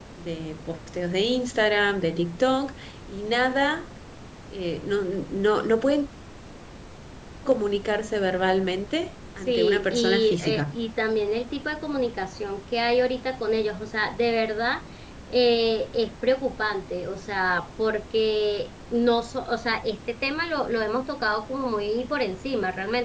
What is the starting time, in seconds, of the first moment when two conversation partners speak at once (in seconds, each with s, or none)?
9.4 s